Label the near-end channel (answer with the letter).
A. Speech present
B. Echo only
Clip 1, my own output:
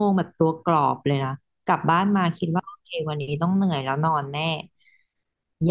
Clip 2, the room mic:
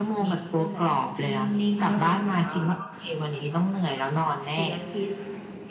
A